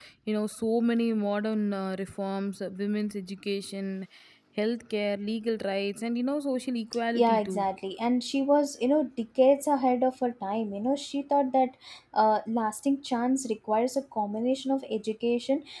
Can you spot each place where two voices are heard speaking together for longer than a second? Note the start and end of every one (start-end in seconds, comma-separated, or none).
none